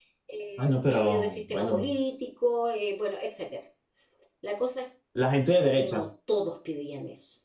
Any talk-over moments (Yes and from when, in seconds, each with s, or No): Yes, from 0.6 s